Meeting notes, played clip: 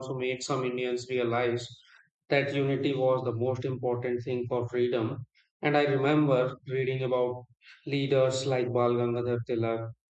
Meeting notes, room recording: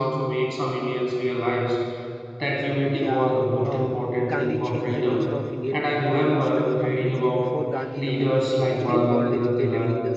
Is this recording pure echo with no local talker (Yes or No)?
No